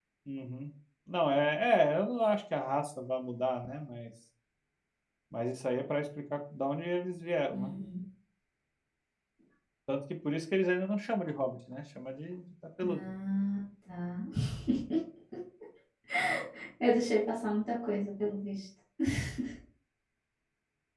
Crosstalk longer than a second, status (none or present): none